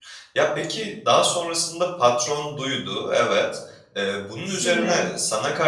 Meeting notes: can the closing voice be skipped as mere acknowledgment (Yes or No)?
Yes